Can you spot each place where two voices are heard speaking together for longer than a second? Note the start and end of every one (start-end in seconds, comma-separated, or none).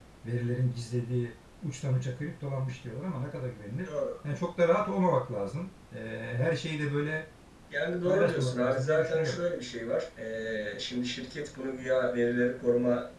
8.1-9.4